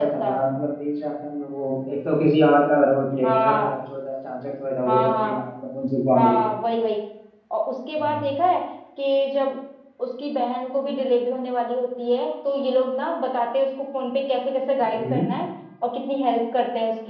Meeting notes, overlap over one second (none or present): none